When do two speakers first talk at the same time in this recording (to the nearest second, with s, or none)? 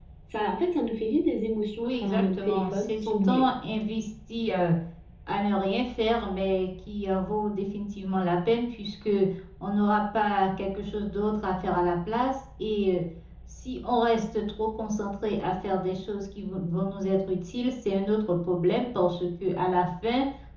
2 s